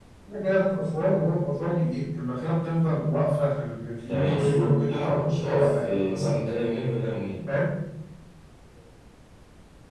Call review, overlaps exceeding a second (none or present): present